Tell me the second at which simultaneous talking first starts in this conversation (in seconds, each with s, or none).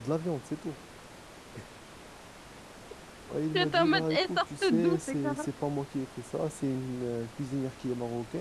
3.5 s